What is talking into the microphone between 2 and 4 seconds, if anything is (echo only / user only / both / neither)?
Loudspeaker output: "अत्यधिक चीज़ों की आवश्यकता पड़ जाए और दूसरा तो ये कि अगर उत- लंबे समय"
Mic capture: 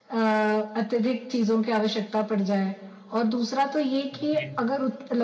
echo only